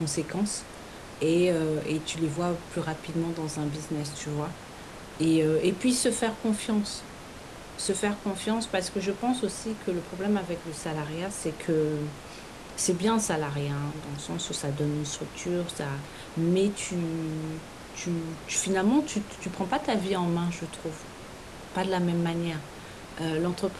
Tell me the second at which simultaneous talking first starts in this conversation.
none

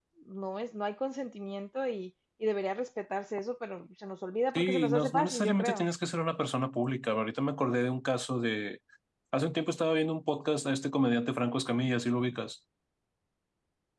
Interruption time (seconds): 4.5 s

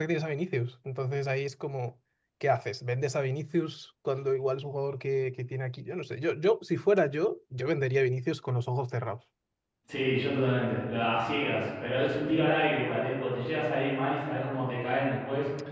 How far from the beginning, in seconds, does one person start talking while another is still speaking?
none

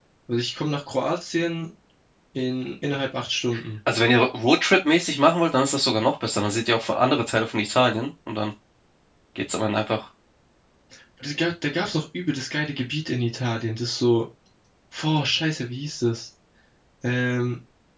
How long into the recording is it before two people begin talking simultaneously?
none

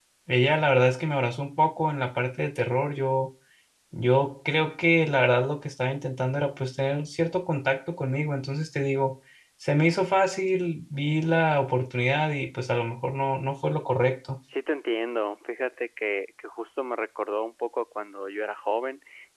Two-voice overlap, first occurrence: none

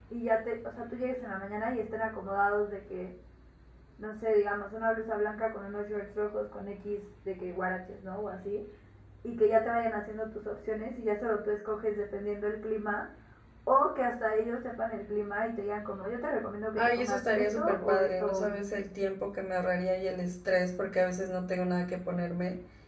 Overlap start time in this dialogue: 16.8 s

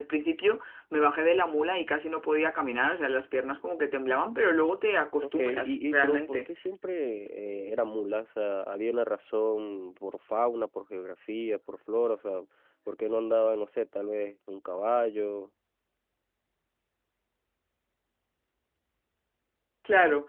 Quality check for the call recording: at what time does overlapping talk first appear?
5.2 s

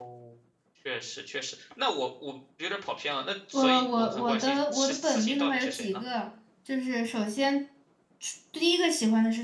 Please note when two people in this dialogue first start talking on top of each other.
3.5 s

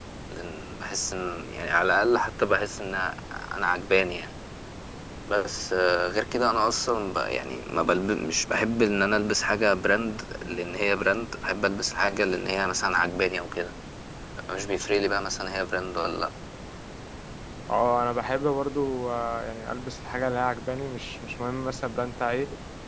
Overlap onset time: none

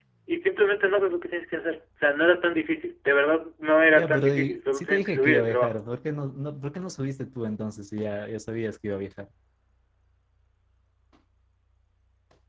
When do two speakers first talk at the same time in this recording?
4.0 s

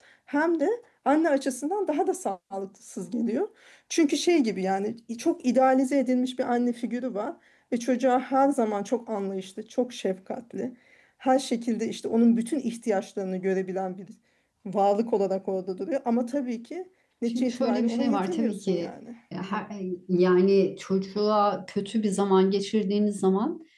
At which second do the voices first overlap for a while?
17.3 s

